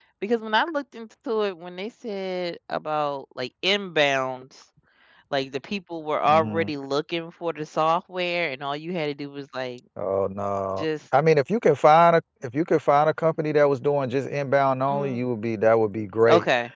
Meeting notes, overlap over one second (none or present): none